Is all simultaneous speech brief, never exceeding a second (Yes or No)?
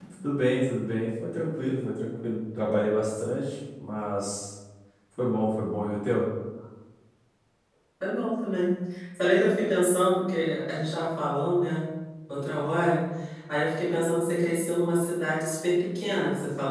Yes